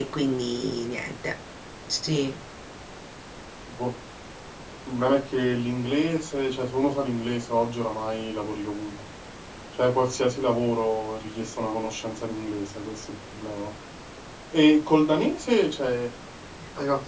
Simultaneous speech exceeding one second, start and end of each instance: none

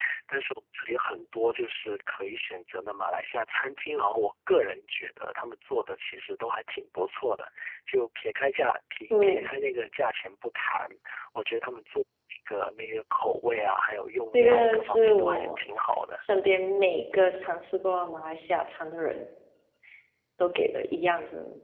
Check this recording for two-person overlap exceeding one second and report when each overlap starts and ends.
14.3-15.6

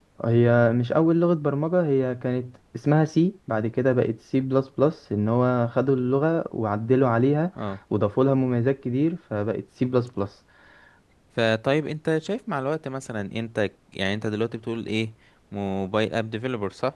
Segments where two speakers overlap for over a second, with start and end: none

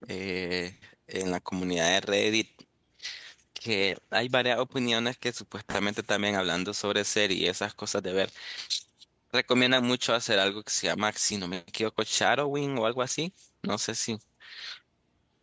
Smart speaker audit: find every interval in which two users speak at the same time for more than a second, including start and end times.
none

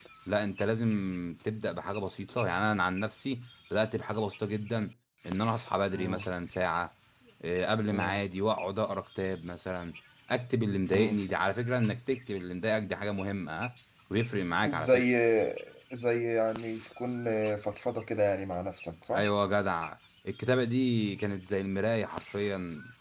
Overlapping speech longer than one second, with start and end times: none

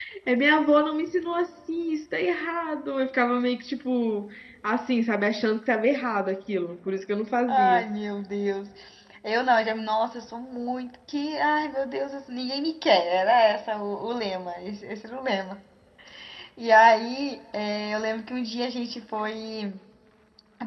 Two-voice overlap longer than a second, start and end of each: none

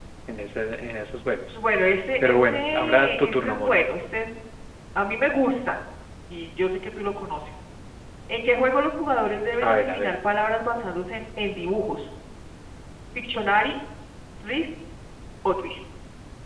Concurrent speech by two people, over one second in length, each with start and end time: 2.2-3.8

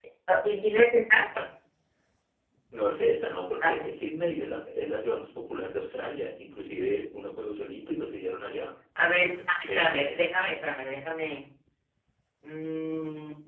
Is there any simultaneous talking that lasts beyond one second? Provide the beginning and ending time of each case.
none

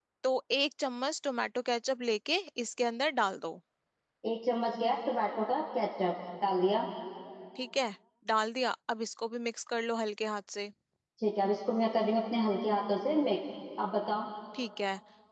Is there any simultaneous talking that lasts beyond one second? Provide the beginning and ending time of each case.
none

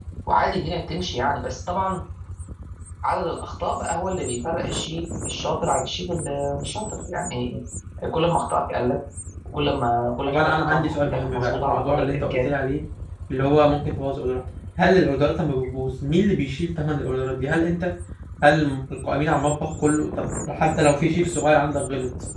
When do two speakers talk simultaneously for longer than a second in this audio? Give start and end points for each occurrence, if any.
10.3-12.5

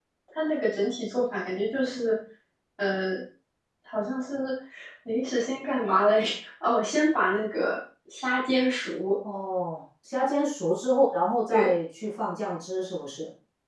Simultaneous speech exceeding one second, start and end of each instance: none

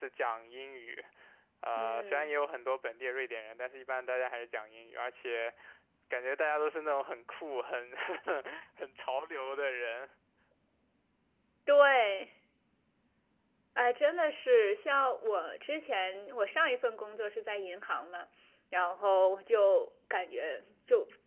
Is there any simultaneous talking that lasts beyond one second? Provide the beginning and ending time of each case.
none

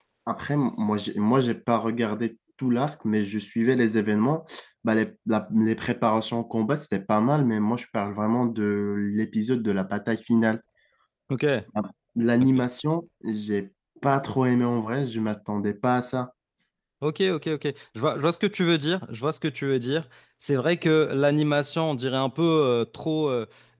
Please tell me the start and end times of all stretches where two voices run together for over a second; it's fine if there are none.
none

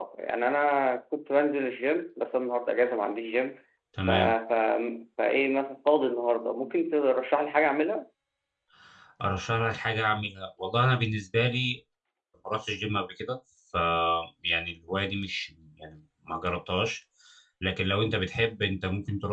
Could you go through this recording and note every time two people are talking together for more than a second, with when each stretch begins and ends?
none

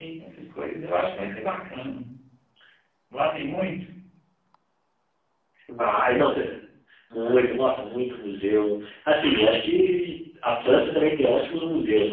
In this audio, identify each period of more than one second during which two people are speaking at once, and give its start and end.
none

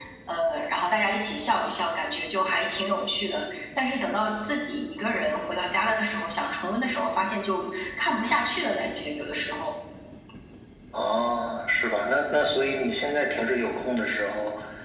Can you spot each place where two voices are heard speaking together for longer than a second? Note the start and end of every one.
none

